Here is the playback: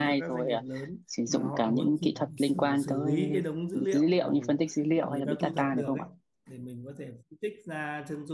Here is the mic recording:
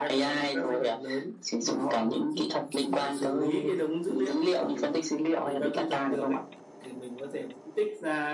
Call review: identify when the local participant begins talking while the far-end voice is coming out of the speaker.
none

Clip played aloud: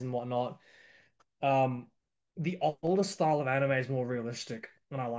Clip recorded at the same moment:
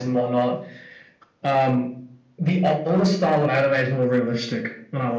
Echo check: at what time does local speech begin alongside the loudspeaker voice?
none

